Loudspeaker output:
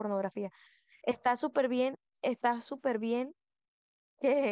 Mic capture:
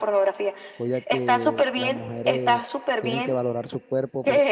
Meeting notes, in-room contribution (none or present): present